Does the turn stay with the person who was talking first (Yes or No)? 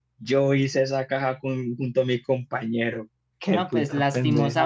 No